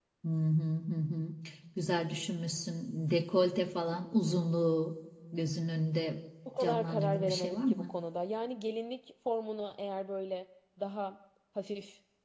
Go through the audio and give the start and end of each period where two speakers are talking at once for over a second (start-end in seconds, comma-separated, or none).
6.6-7.9